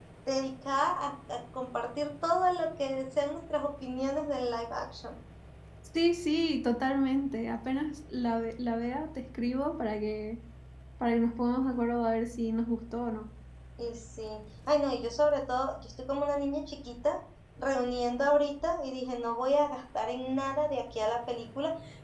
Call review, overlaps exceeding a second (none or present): none